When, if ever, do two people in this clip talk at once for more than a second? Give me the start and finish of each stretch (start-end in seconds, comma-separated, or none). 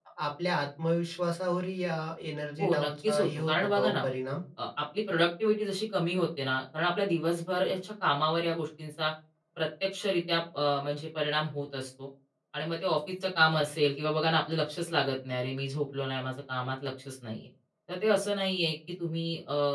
2.6-4.0